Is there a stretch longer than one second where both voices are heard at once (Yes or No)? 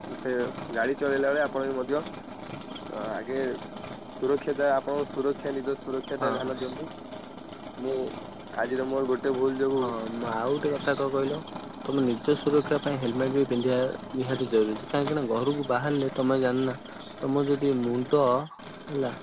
No